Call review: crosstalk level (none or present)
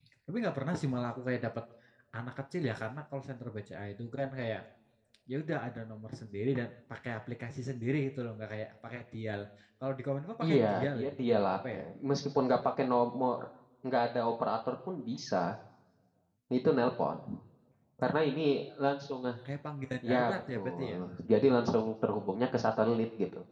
present